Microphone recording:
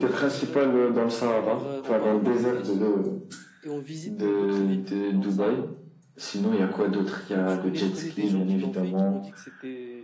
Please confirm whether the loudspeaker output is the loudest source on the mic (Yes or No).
Yes